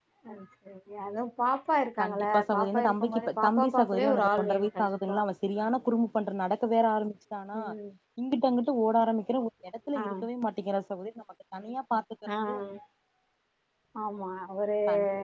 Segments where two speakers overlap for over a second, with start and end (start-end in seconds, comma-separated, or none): 2.0-5.0